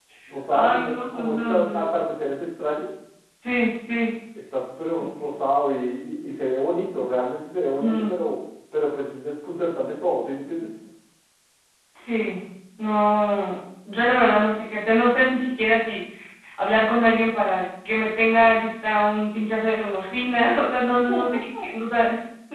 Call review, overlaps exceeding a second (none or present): present